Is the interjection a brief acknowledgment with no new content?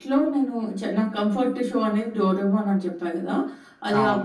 Yes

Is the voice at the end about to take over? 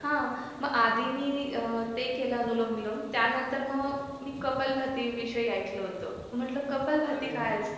No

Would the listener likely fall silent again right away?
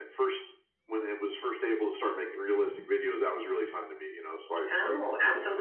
No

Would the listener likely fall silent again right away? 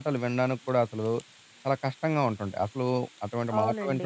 No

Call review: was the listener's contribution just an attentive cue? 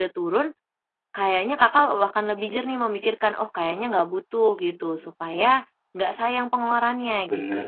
No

